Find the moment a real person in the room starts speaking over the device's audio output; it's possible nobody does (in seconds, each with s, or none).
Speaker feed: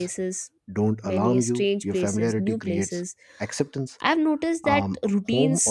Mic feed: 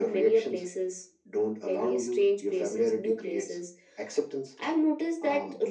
none